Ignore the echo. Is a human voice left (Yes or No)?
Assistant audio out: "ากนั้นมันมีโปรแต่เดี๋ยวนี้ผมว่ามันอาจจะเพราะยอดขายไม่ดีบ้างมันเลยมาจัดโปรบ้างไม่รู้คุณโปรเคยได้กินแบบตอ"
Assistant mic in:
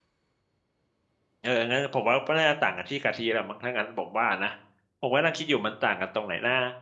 Yes